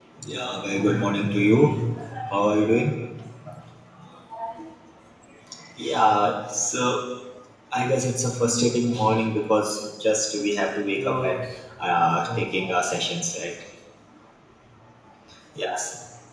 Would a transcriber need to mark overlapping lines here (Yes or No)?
Yes